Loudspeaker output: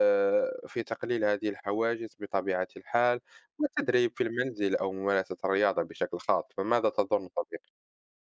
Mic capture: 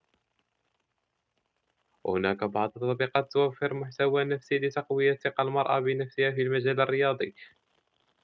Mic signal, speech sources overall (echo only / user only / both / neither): user only